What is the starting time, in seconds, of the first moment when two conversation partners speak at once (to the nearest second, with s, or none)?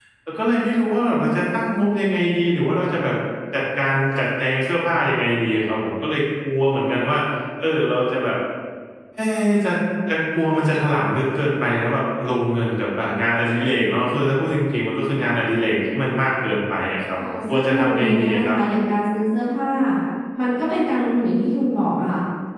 17 s